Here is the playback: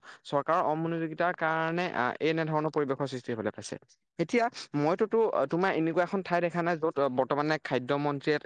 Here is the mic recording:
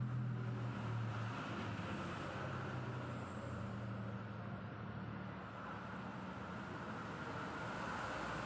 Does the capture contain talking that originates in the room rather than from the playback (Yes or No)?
No